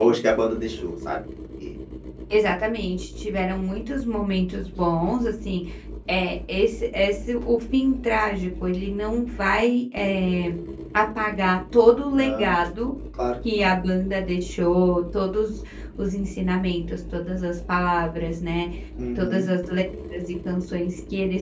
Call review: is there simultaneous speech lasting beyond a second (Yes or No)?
No